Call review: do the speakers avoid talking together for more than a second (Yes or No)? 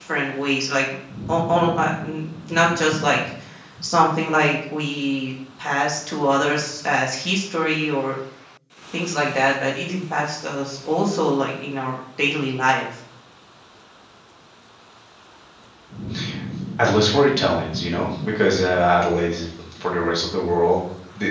Yes